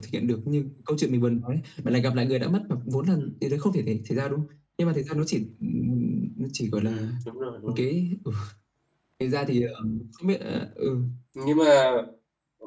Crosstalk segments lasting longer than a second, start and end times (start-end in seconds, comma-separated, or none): none